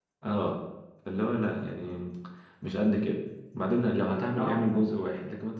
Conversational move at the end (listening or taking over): listening